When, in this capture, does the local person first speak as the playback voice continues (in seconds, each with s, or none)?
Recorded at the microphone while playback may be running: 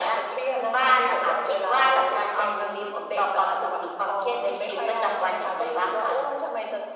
none